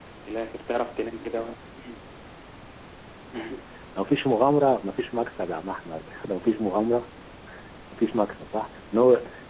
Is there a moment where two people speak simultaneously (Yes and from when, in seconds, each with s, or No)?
No